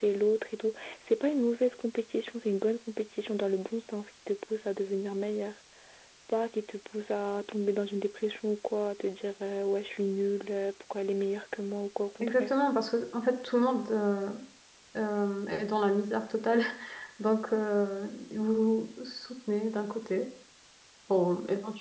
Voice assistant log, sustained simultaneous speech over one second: none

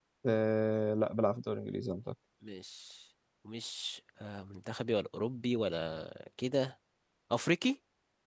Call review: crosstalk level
none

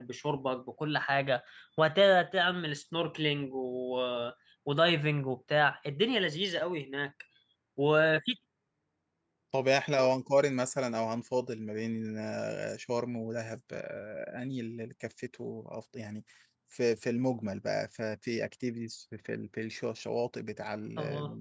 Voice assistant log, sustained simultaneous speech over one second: none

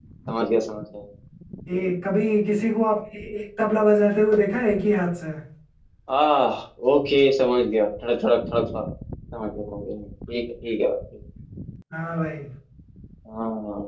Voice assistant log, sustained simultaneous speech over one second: none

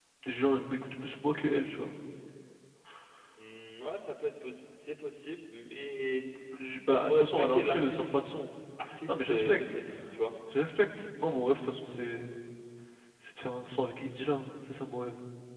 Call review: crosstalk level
present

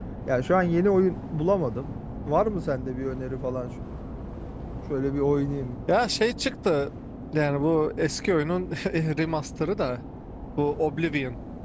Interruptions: none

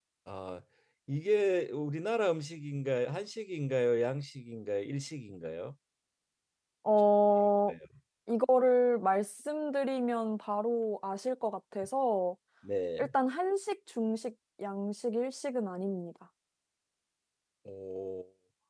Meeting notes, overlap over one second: none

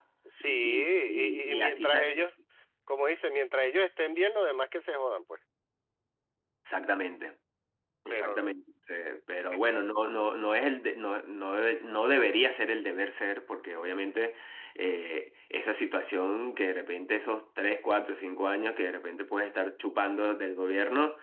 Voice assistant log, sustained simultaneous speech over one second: present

